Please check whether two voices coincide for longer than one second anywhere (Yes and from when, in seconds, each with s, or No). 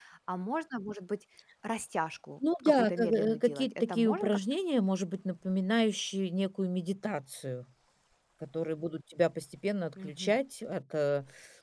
Yes, from 2.6 s